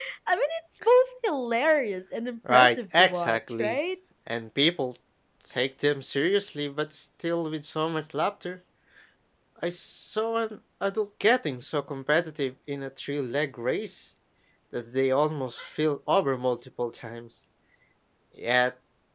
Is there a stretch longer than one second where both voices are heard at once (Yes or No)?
Yes